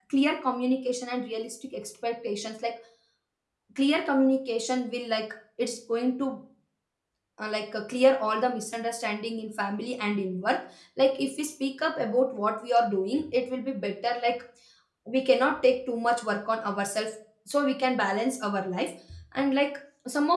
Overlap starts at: none

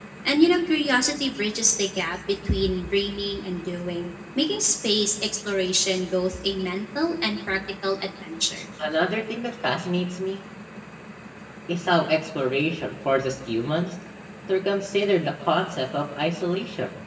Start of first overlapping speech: none

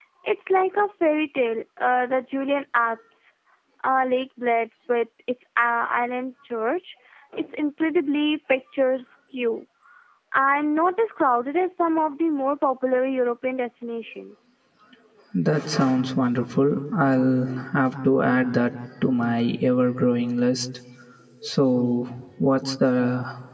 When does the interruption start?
none

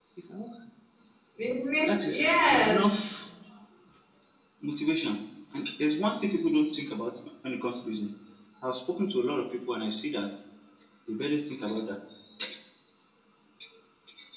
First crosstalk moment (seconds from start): 1.9 s

